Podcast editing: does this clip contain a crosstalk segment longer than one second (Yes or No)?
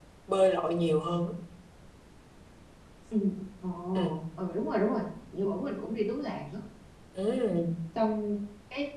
No